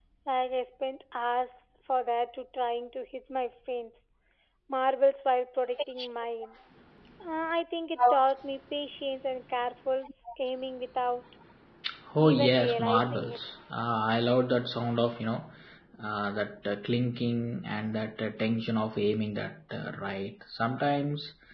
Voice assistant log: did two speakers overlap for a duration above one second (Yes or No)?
Yes